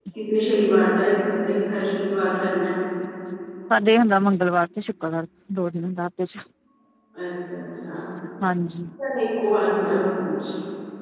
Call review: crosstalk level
none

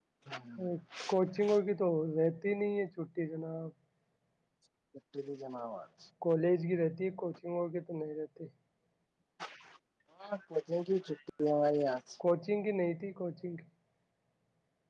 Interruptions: none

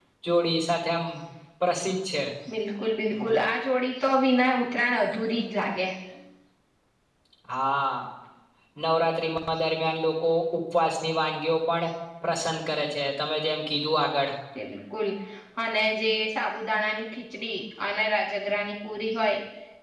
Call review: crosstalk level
none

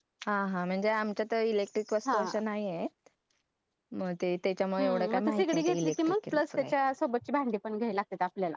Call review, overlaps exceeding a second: present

